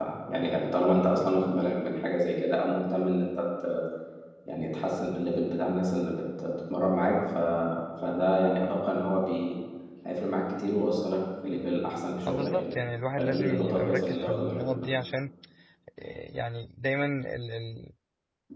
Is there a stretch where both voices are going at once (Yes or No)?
Yes